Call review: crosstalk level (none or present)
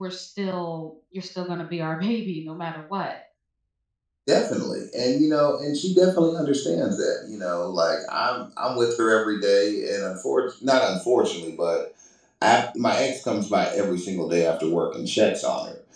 none